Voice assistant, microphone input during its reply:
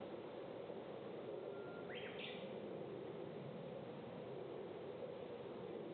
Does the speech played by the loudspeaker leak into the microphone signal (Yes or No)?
No